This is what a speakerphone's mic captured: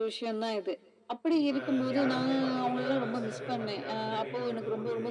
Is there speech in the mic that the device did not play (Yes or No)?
Yes